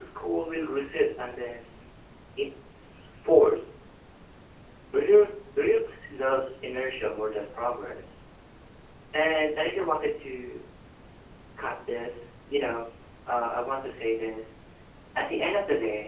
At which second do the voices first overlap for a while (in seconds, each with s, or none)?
none